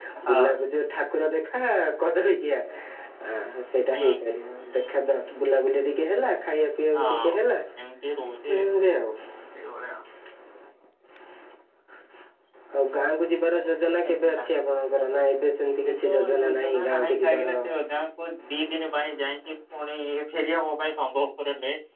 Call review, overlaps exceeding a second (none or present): present